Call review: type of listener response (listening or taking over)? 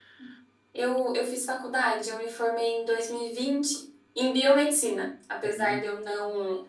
listening